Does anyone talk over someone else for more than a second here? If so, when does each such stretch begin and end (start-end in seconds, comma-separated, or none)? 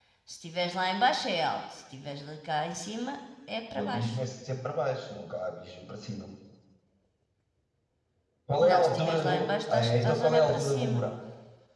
8.7-11.0